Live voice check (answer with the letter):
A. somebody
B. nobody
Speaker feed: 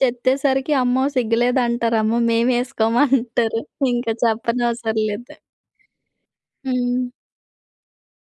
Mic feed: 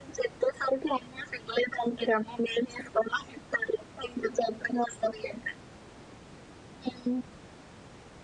B